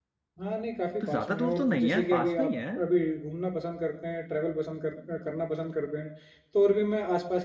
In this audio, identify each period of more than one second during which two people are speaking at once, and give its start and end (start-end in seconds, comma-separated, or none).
1.0-2.5